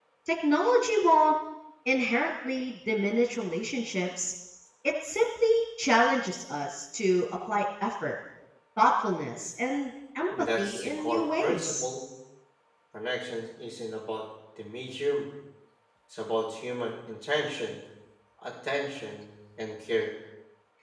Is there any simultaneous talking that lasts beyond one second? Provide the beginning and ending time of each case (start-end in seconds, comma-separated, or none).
10.6-11.9